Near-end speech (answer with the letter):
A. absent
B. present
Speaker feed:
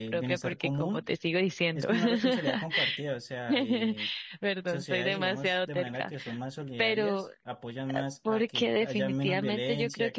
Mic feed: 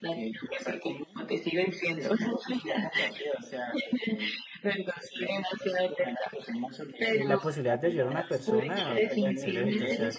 B